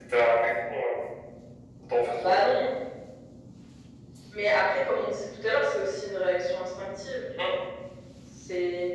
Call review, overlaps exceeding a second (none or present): none